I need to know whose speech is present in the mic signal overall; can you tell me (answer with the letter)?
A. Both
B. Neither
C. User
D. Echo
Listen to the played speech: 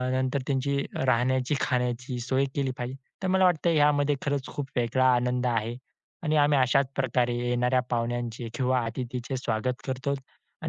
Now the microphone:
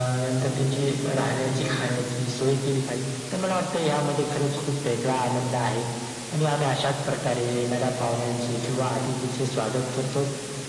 D